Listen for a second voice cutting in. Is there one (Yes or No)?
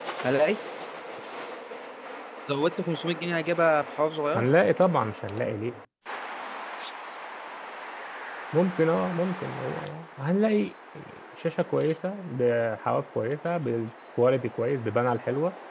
No